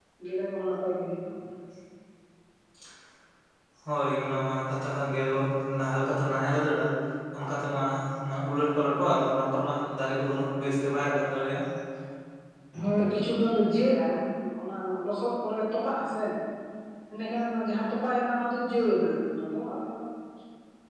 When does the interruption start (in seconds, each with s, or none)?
none